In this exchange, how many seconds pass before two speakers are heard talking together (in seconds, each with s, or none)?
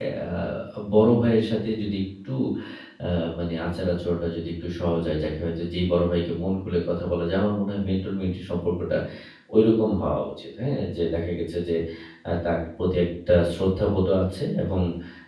none